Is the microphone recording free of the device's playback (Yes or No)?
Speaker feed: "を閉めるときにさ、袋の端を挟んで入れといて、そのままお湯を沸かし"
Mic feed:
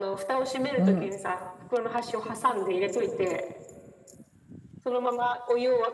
No